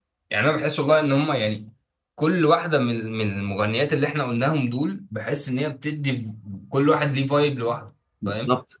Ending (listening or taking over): taking over